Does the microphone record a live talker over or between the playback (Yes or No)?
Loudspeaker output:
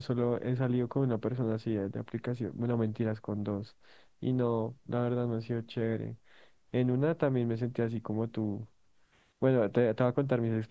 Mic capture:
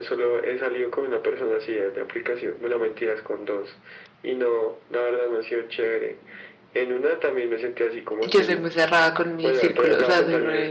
Yes